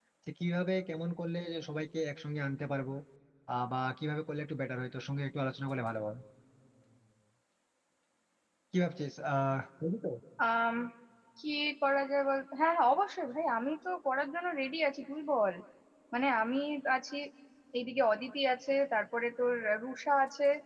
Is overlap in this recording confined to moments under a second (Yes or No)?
Yes